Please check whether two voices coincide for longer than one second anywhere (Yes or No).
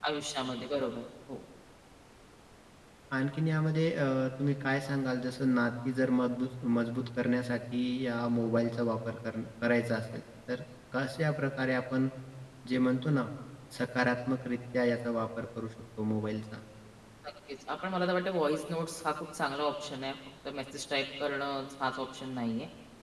No